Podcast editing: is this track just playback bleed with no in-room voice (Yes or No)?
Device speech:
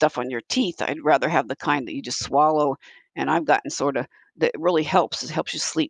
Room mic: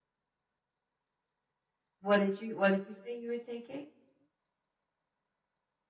No